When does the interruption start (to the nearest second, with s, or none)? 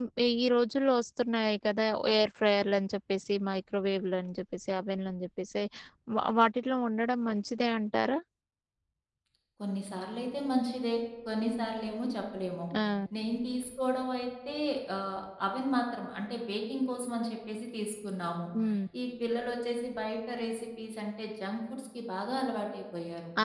none